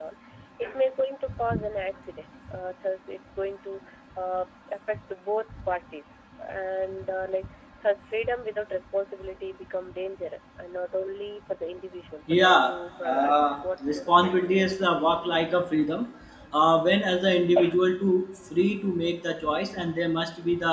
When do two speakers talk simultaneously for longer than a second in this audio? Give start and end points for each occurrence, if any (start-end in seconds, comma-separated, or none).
12.3-15.0